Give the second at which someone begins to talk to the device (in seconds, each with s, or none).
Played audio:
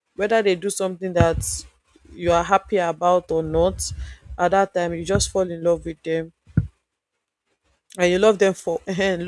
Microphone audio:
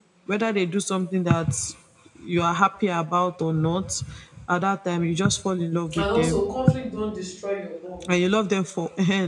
5.9 s